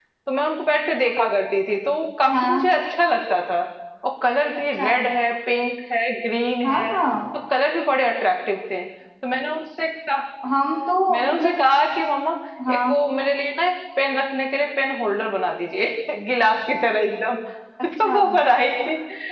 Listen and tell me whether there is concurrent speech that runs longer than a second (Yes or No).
No